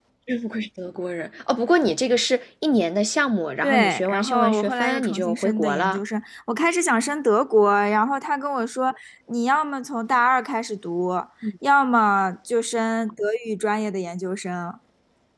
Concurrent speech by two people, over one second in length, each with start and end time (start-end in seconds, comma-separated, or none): 3.6-6.0